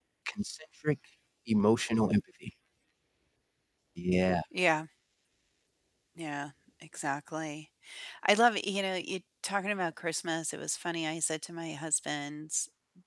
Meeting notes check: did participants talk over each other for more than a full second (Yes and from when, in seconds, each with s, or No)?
No